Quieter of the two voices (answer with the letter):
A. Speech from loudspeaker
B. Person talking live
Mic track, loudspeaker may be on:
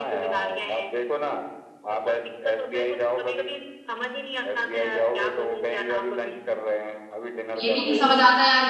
A